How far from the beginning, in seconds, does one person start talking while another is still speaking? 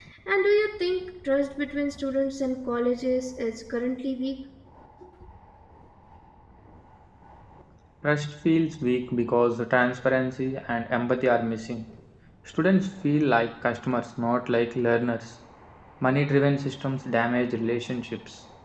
none

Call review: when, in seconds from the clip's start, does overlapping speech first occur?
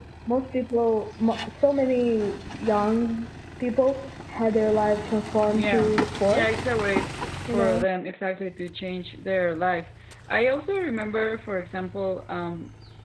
5 s

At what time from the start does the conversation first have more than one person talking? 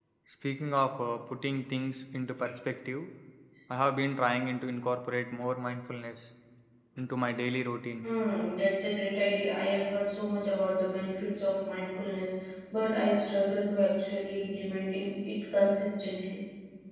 none

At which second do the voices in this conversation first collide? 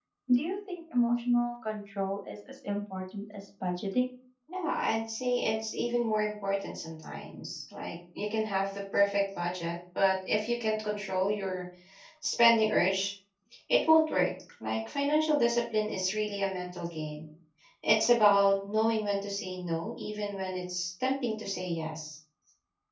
none

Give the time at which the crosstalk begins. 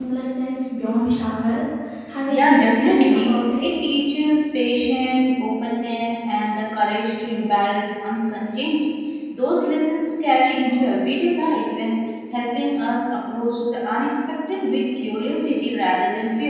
2 s

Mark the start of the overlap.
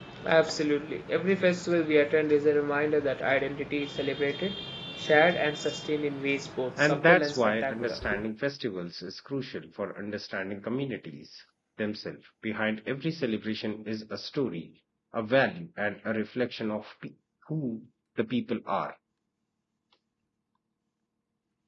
7 s

